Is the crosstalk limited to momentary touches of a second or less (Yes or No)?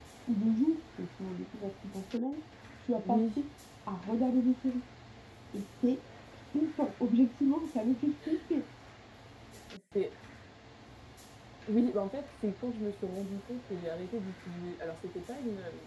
Yes